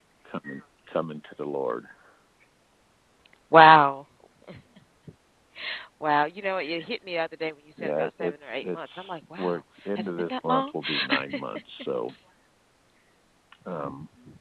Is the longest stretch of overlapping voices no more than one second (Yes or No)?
No